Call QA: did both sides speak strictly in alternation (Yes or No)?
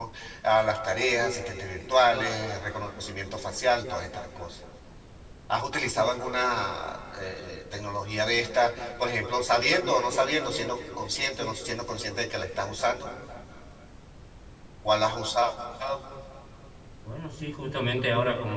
Yes